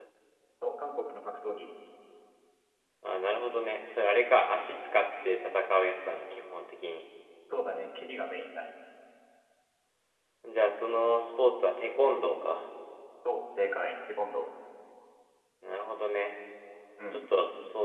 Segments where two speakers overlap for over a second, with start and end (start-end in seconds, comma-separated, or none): none